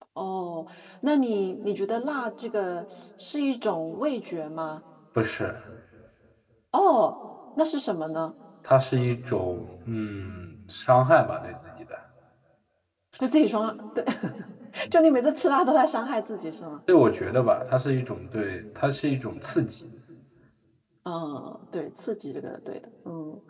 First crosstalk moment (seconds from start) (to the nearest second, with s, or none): none